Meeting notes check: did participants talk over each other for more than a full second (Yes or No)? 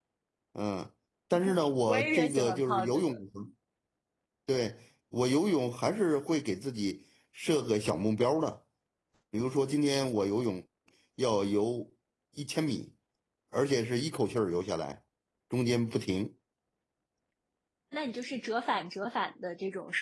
Yes